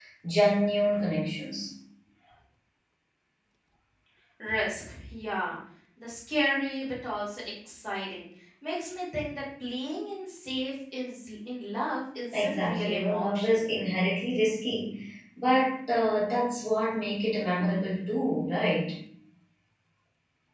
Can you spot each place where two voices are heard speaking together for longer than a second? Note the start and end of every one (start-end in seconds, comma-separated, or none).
12.3-13.7